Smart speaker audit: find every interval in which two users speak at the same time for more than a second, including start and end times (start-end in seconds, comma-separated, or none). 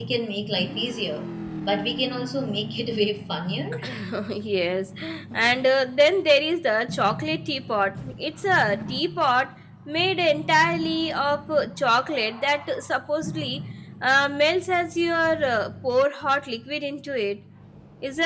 none